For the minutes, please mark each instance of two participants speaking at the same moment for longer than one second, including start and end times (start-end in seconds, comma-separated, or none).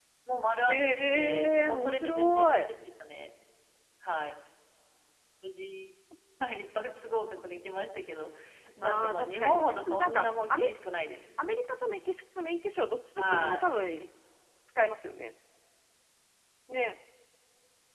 0.7-2.7, 8.8-10.7